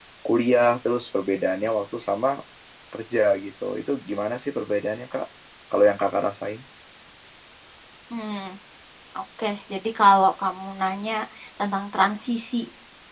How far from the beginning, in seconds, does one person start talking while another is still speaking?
none

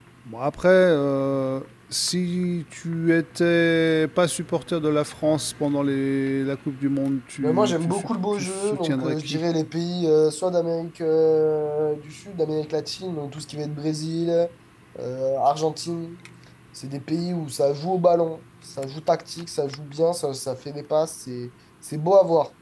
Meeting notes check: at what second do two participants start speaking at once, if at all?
7.4 s

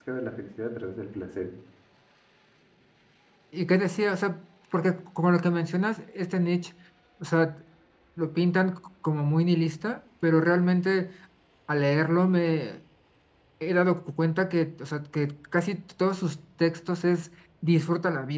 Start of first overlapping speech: none

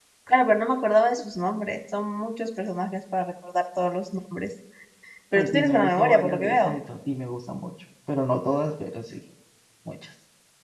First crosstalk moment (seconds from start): 5.4 s

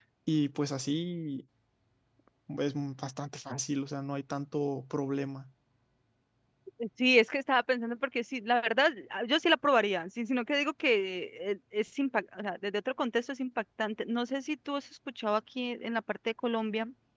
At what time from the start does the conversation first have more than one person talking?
none

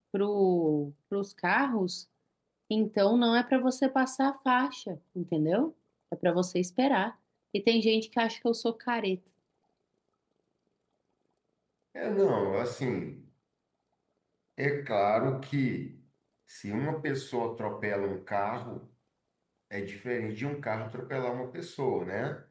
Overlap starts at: none

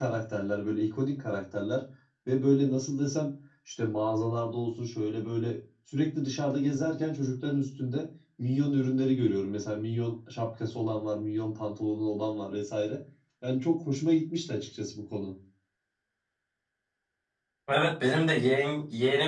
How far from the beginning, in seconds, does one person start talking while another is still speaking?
none

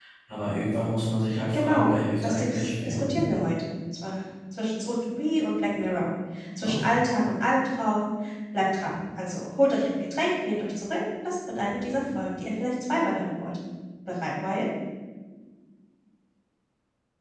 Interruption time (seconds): 1.5 s

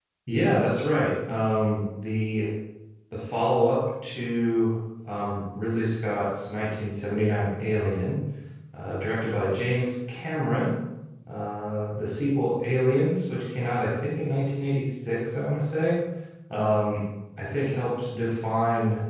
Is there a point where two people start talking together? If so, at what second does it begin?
none

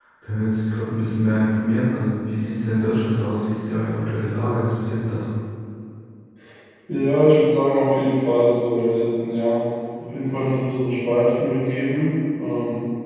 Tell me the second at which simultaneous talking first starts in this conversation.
none

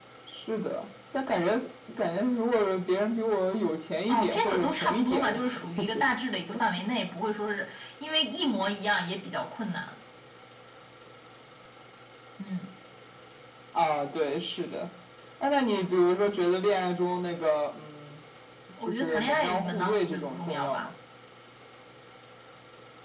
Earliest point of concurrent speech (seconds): 4.1 s

